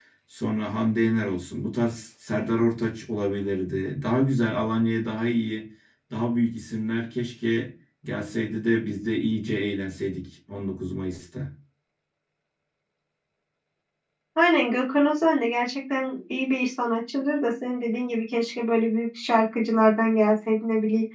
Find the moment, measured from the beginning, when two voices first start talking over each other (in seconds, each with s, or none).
none